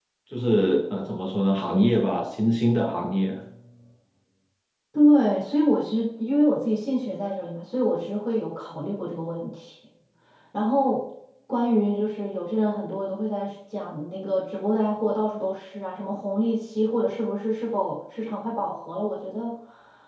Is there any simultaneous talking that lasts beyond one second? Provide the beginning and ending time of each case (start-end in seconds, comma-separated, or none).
none